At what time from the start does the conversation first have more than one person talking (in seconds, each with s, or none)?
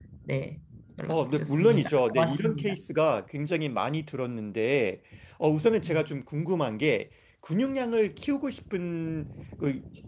1.1 s